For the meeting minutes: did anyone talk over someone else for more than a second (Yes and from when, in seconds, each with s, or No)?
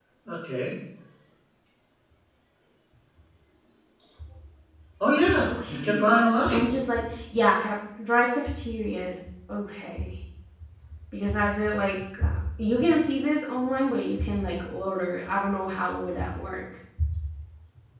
Yes, from 5.4 s